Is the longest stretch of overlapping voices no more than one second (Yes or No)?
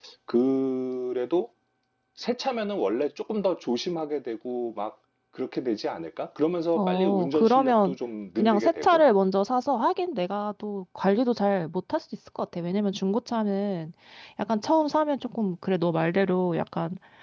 No